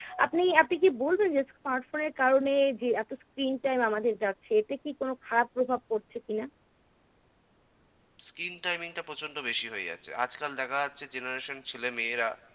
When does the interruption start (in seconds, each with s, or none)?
none